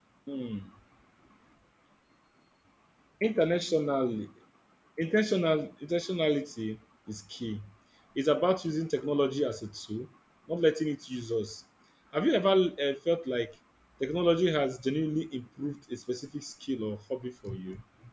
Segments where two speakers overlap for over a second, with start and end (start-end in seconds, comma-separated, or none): none